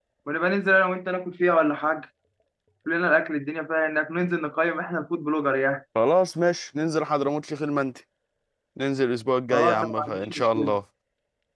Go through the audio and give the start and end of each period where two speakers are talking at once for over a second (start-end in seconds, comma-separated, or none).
9.5-10.7